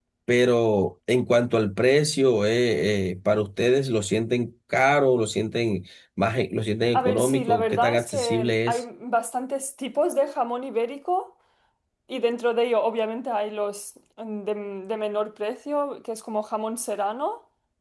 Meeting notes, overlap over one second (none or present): present